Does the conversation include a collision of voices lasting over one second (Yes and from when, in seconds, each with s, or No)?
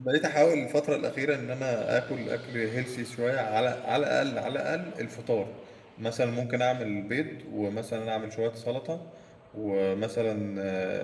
No